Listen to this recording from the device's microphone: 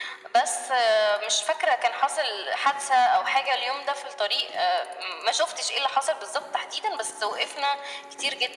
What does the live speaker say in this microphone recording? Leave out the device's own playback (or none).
none